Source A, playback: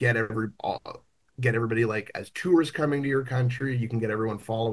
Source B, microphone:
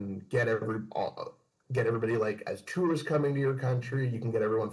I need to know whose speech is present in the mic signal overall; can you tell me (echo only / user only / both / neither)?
echo only